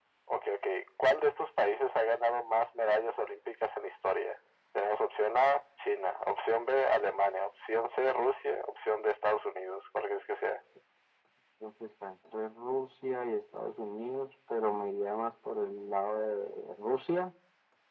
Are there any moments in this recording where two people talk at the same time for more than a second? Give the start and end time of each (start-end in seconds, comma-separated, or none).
none